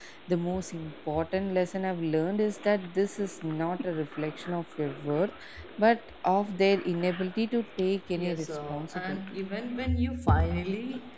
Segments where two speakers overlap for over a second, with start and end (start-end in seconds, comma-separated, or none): 8.2-9.4